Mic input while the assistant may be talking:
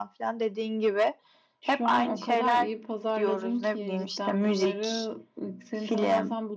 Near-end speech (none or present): none